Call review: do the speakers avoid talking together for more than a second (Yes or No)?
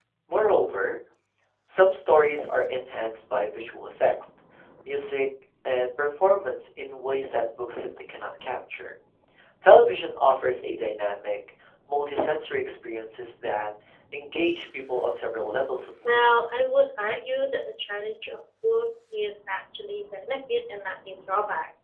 Yes